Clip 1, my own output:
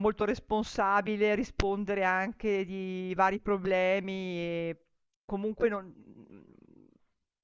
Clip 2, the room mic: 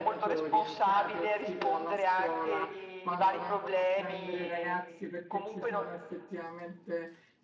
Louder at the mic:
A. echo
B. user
A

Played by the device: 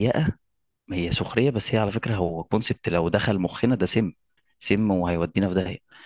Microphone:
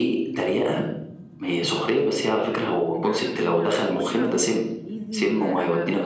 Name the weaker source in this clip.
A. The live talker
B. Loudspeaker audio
A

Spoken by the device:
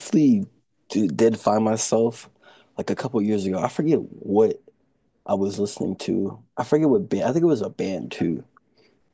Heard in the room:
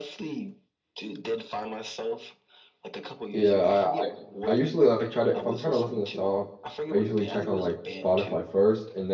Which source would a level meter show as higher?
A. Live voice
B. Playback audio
A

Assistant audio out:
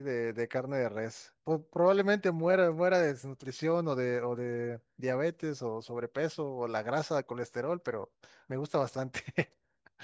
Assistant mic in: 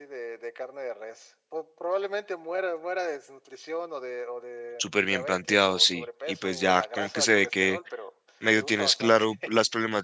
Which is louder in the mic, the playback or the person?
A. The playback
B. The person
B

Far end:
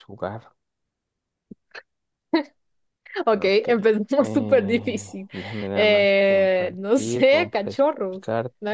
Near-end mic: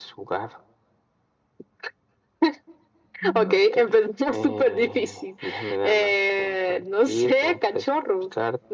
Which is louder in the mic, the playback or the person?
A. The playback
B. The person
A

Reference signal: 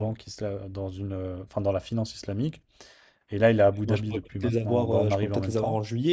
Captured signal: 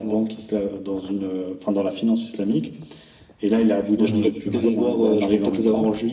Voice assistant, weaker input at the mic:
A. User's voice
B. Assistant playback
A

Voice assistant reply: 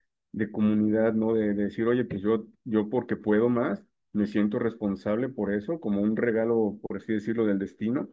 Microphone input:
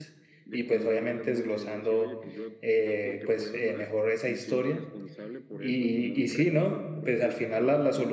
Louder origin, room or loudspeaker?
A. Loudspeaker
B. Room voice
B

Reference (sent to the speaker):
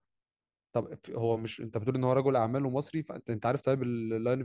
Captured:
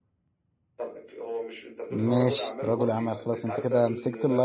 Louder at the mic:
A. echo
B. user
B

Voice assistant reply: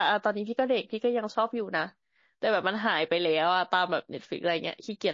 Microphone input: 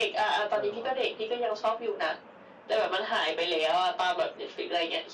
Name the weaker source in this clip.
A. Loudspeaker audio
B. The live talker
B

